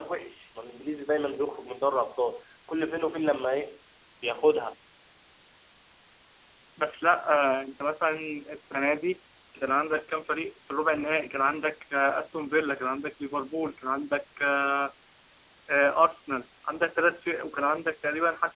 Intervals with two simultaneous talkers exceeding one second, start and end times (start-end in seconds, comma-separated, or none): none